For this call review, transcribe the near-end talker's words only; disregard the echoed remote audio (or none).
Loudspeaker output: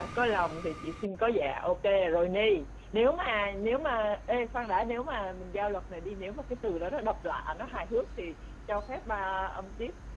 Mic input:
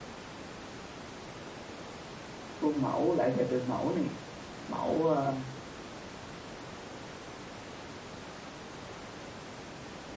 khuôn mẫu lại về từ mẫu nè mẫu ờ,